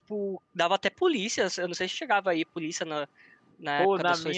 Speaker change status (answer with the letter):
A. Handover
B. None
A